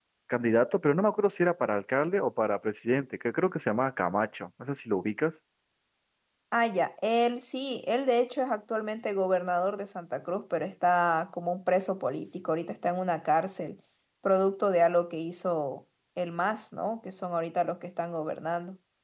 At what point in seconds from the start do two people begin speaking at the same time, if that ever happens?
none

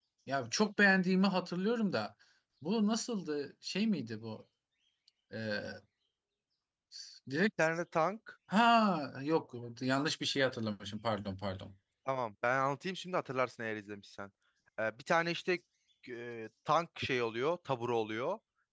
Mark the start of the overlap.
none

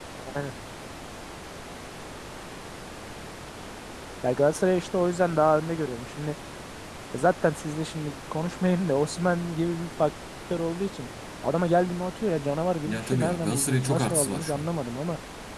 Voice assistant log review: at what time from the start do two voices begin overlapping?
12.8 s

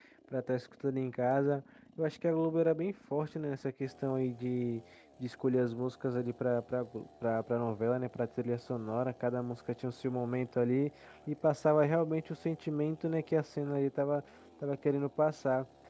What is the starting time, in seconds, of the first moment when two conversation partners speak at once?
none

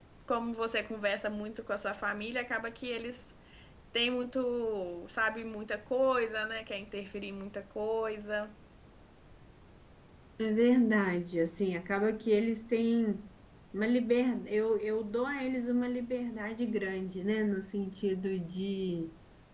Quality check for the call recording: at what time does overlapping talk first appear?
none

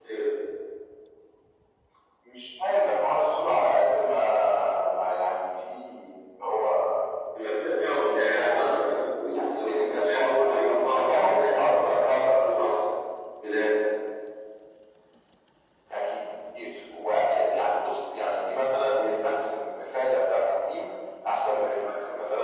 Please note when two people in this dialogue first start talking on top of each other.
8.2 s

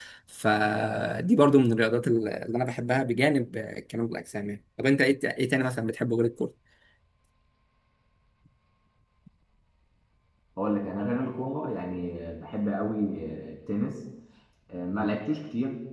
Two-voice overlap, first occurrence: none

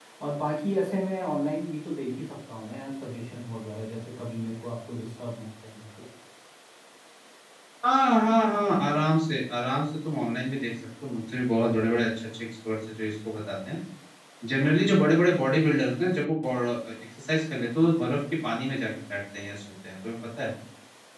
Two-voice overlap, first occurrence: none

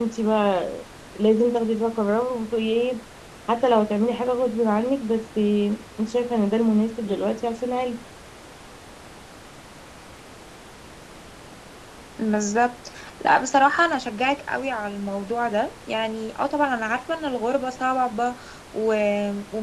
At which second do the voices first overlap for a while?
none

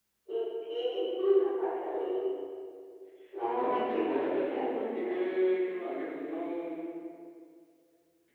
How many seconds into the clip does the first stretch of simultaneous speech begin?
3.5 s

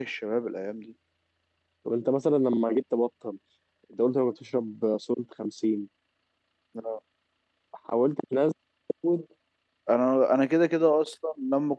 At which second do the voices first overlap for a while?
none

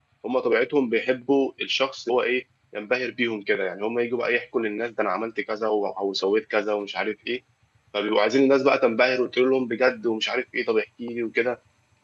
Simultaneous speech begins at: none

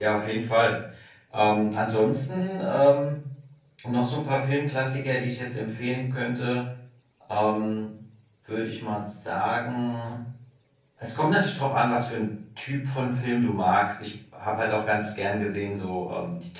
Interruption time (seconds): none

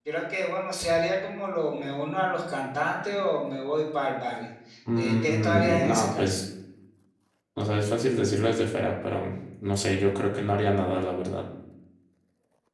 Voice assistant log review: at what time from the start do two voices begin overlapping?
5.0 s

